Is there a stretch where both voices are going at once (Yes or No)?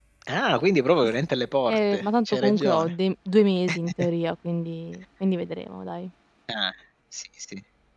Yes